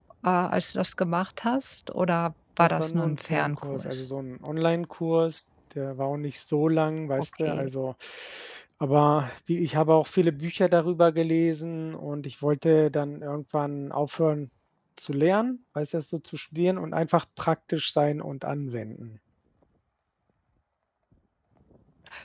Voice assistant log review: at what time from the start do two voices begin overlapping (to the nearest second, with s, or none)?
3 s